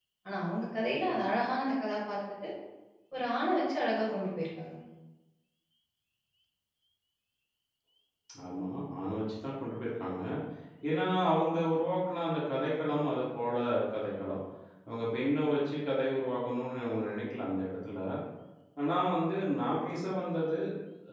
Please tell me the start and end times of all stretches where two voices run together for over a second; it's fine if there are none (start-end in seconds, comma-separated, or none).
none